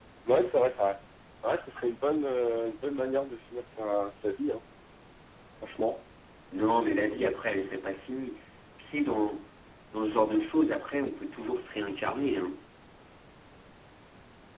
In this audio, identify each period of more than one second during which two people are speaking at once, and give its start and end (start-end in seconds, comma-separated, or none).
none